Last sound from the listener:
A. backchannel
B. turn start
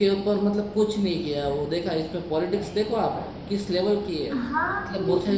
B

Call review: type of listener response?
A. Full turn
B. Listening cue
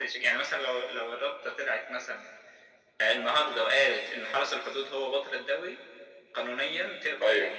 B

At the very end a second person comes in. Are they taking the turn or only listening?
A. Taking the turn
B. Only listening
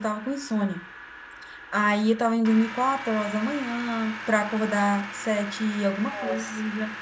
B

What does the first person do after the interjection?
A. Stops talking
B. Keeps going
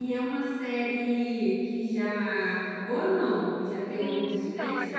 A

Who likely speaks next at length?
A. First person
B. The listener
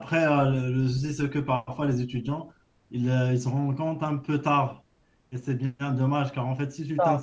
A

